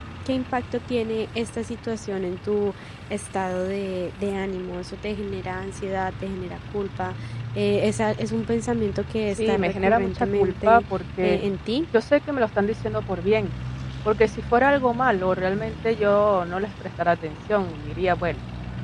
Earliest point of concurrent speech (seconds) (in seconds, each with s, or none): 9.4 s